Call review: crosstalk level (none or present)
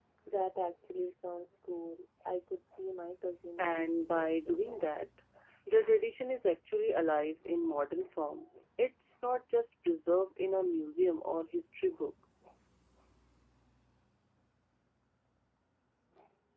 present